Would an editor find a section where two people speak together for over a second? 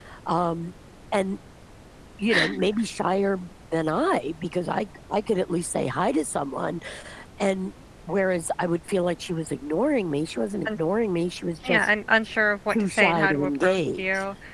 Yes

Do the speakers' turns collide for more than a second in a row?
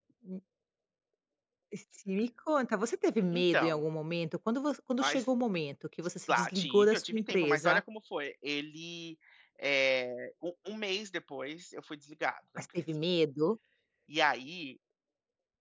Yes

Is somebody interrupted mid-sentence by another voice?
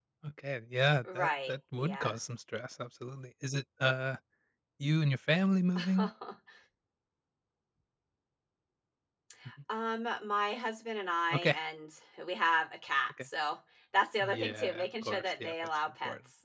Yes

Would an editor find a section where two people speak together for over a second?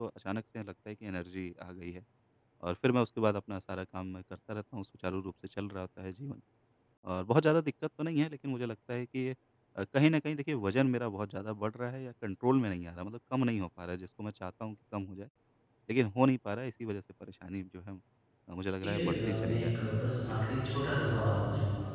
Yes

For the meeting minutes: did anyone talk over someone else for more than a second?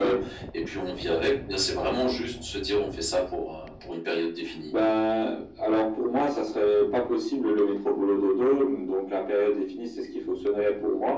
No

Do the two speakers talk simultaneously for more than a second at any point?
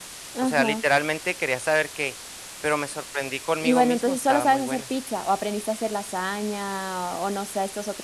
Yes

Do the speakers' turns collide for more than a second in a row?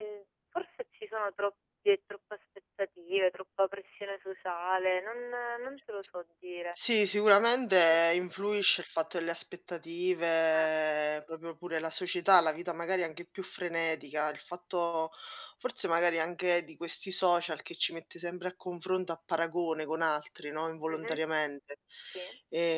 No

